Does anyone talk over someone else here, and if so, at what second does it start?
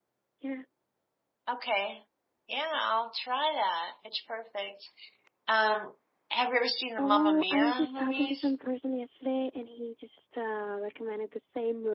7 s

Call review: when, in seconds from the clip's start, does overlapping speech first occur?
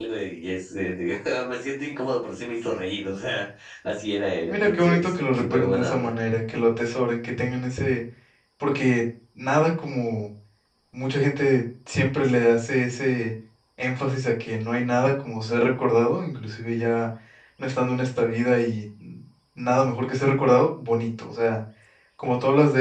4 s

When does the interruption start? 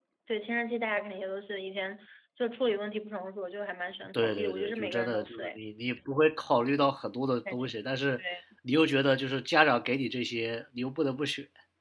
4 s

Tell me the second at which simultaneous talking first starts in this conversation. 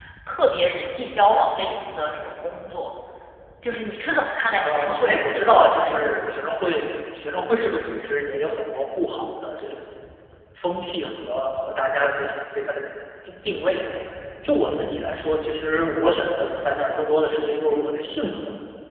5 s

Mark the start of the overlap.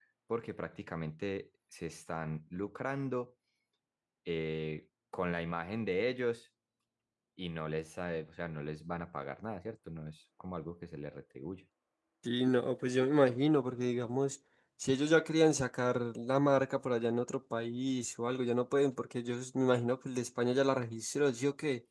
none

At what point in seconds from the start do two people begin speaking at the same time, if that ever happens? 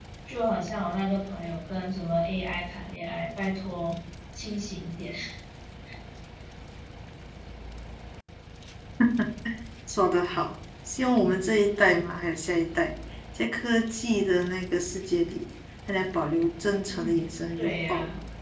17 s

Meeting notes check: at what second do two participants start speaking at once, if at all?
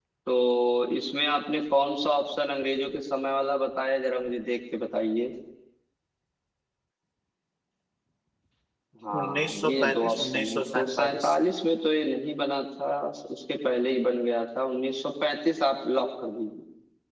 9 s

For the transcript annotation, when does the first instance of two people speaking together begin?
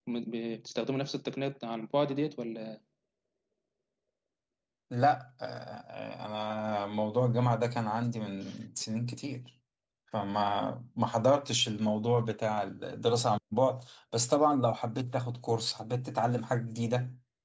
none

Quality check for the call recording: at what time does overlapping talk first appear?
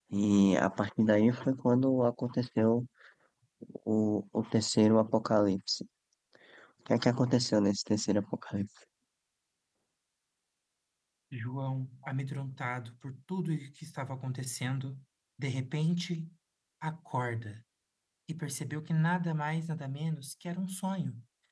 none

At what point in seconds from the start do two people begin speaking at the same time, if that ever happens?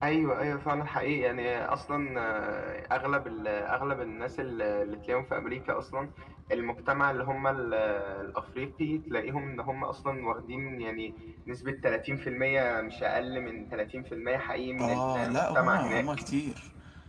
15 s

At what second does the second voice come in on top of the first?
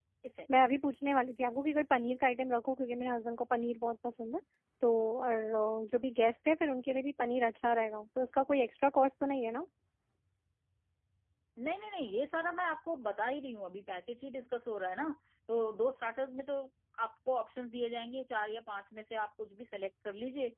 none

